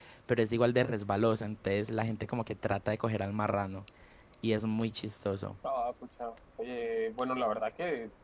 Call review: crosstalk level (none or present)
none